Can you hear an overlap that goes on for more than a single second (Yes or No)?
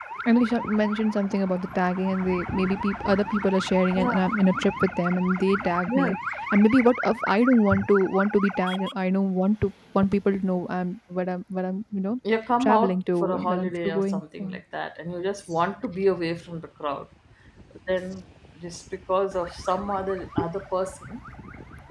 Yes